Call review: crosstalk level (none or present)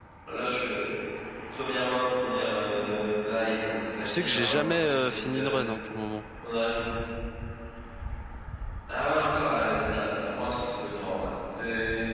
present